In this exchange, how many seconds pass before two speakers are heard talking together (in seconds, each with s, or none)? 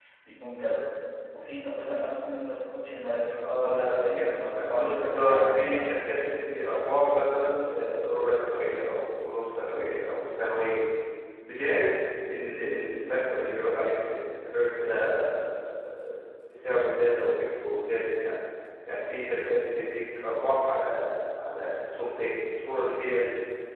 3.3 s